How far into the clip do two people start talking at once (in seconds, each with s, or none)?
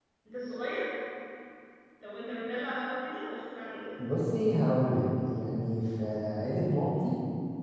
none